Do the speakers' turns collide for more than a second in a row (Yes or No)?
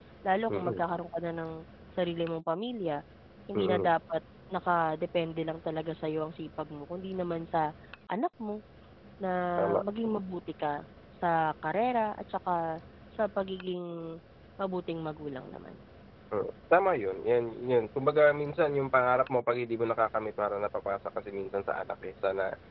No